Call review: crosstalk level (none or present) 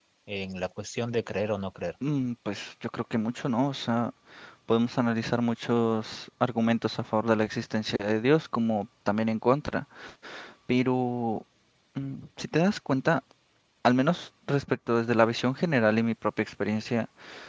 none